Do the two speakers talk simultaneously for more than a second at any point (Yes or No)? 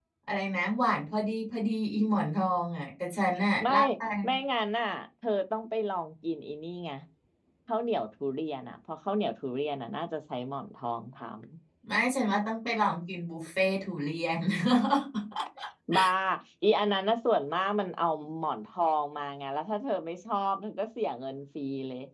No